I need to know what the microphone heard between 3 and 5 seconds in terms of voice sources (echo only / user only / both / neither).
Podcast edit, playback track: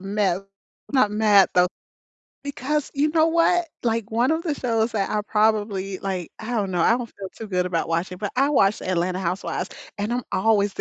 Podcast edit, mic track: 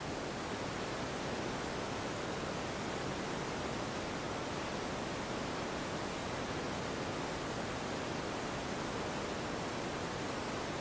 neither